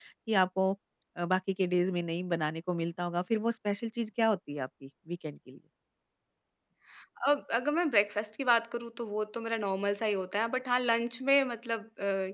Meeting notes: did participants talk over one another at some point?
No

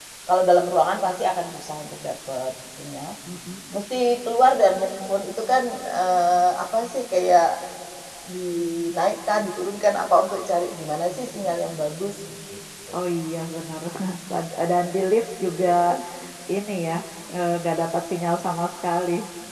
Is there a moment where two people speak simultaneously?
No

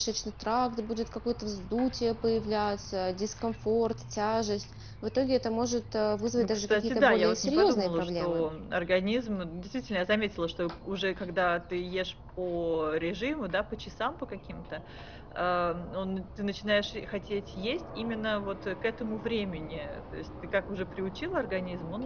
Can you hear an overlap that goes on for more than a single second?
Yes, from 6.4 s

